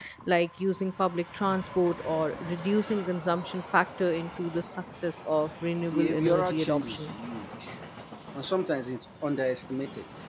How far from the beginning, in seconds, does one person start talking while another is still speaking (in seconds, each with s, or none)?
5.9 s